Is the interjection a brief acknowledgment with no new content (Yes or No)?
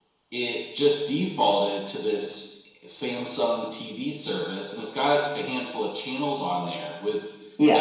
Yes